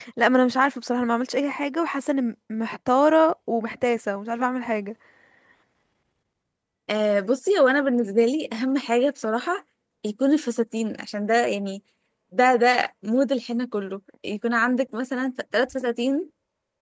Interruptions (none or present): none